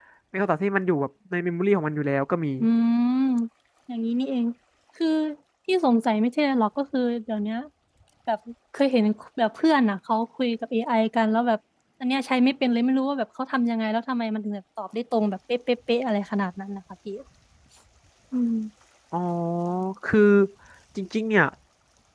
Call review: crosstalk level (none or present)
none